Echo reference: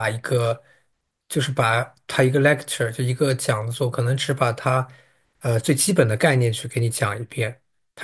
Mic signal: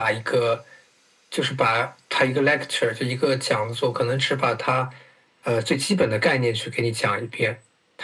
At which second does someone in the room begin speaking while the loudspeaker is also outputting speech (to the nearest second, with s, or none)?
none